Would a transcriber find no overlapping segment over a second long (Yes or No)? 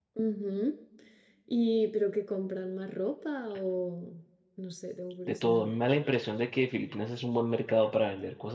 Yes